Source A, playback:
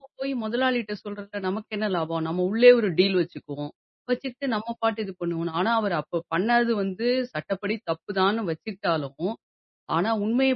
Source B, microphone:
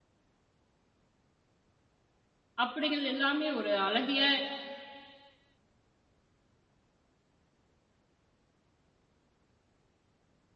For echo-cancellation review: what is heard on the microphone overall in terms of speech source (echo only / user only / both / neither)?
user only